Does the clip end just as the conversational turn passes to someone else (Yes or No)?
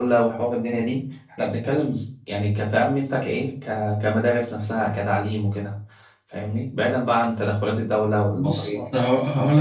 Yes